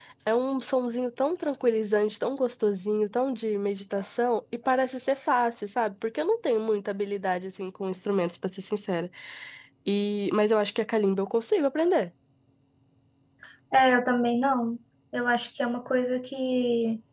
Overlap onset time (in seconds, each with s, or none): none